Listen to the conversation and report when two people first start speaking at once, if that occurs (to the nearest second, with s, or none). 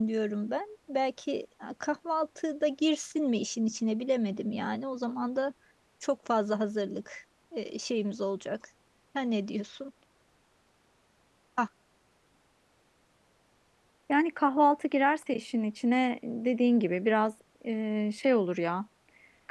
none